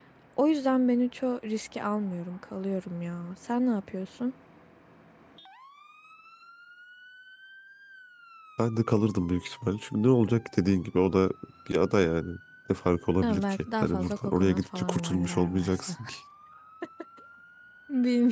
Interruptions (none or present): present